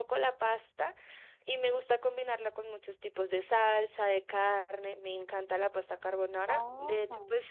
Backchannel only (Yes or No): Yes